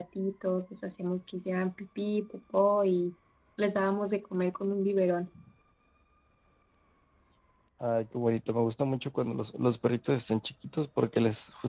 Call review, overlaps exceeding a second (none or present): none